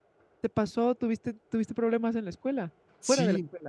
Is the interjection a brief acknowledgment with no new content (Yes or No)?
No